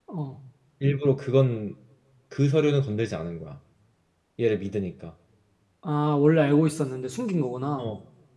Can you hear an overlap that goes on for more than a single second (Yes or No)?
No